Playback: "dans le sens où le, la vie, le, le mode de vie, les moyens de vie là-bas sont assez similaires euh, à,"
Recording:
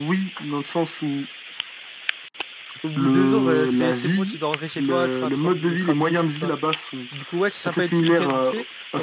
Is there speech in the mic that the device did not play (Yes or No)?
Yes